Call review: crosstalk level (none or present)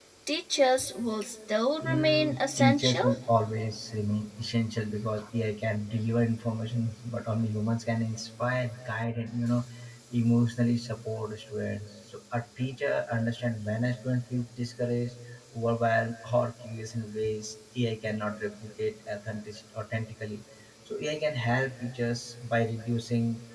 present